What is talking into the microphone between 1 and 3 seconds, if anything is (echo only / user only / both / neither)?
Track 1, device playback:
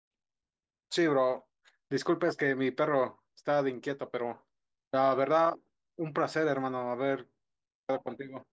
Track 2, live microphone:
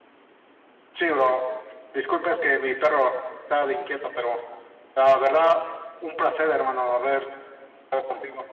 echo only